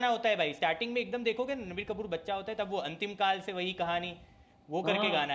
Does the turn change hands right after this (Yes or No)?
Yes